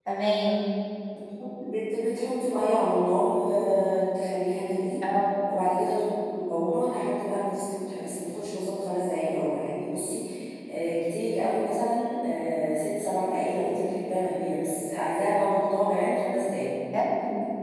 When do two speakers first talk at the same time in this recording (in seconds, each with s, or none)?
none